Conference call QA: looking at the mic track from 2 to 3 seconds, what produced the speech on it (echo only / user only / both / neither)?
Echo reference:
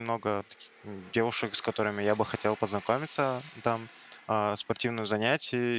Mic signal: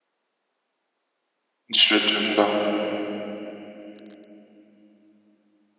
user only